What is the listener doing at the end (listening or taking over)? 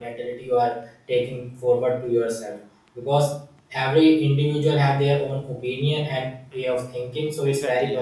taking over